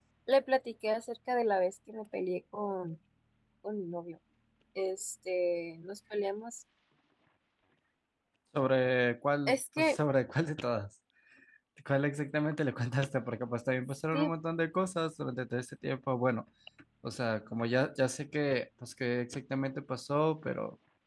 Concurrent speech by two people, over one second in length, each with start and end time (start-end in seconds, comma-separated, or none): none